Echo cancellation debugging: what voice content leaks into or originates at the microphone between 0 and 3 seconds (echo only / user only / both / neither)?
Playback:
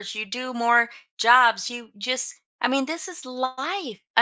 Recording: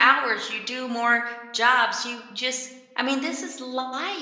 echo only